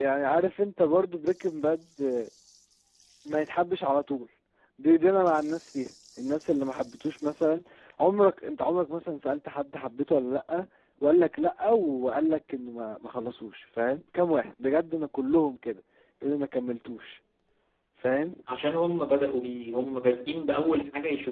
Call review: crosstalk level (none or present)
none